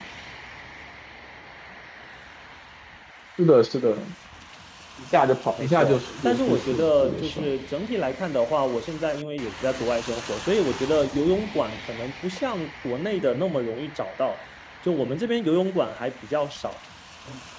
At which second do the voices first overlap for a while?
5.6 s

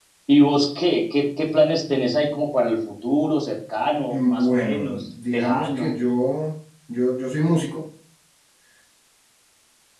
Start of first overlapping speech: 4.1 s

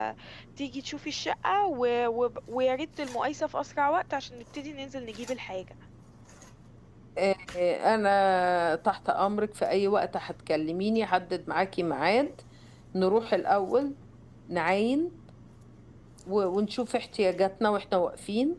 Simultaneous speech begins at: none

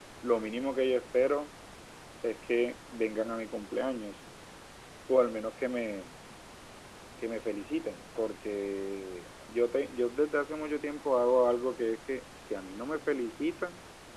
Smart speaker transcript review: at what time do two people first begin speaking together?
none

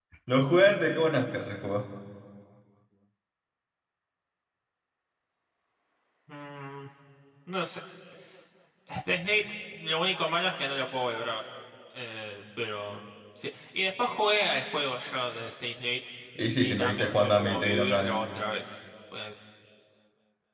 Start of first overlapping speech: 16.6 s

